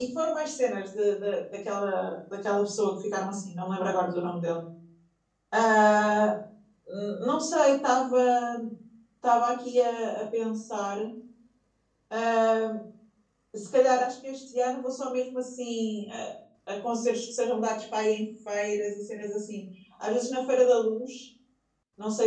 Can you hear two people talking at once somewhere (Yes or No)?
No